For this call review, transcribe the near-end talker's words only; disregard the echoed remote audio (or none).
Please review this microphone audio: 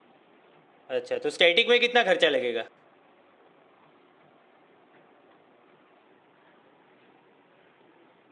अच्छा तो स्टैटिक में कितना खर्चा लगेगा